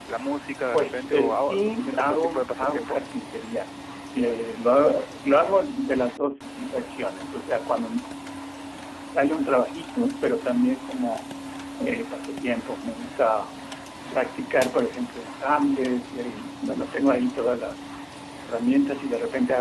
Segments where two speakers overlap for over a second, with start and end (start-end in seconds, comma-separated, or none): 0.7-3.0